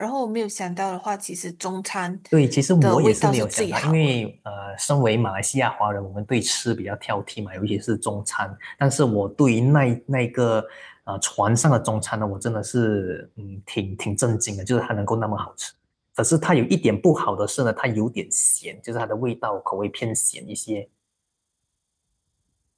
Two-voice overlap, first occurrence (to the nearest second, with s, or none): 3 s